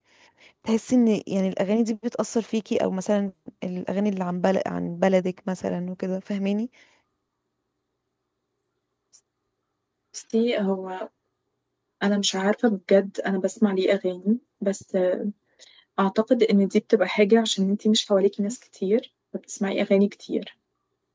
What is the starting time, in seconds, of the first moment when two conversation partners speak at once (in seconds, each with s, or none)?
none